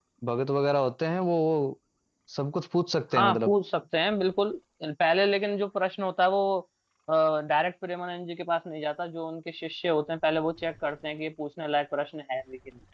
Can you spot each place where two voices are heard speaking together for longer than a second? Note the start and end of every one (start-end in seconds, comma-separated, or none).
none